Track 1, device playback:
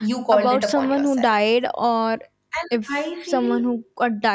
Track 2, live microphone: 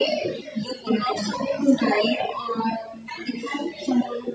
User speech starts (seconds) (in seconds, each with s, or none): none